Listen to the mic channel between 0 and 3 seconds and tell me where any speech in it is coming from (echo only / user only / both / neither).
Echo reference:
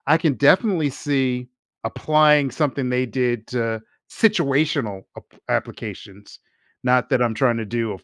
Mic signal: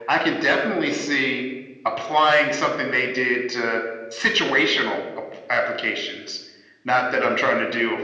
echo only